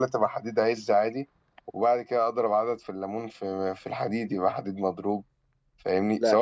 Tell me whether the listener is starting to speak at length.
No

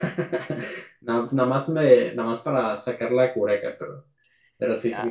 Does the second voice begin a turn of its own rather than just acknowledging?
Yes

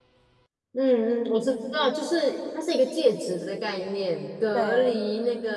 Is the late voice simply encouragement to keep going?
Yes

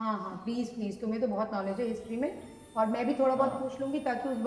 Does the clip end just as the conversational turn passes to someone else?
No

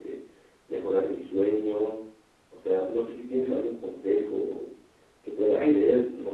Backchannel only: Yes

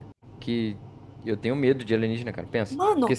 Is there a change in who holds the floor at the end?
No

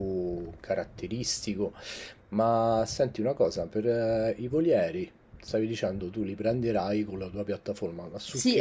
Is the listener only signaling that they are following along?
No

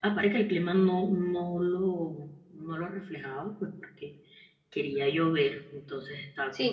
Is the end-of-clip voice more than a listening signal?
Yes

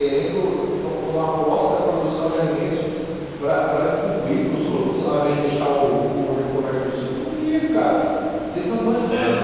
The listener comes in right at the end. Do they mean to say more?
No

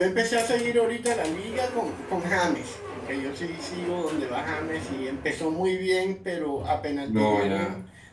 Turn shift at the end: No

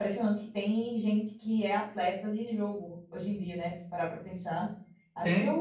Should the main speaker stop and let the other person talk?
No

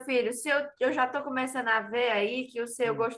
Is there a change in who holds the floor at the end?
No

